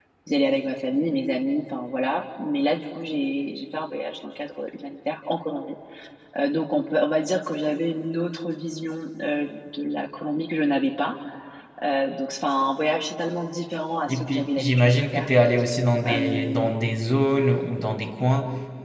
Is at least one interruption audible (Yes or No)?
Yes